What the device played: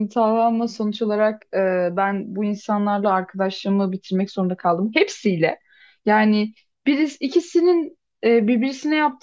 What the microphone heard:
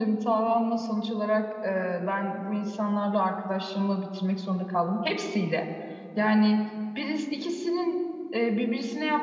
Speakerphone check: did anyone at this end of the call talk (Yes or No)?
No